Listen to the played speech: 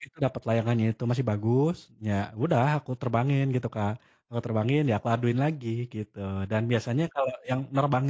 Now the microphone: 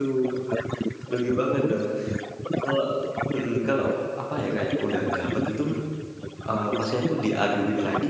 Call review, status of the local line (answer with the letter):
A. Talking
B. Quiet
A